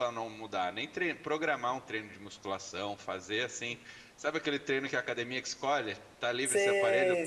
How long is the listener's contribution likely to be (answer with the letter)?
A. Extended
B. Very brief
A